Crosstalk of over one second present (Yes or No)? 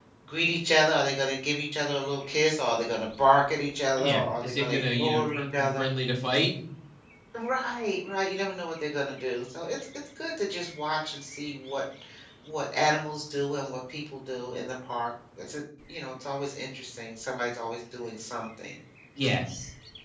Yes